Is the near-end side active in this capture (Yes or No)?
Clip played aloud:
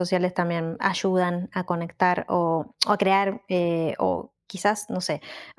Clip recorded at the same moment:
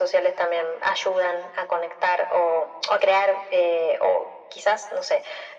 No